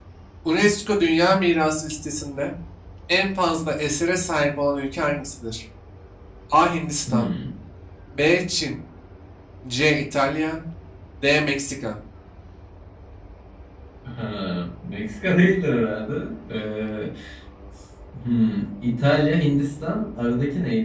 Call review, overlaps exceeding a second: none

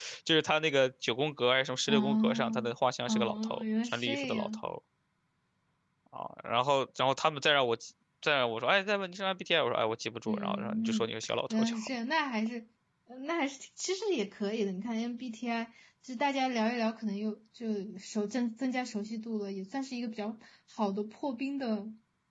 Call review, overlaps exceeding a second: present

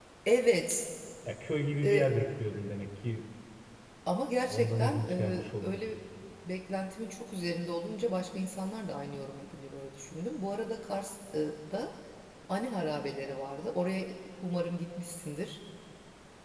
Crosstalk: present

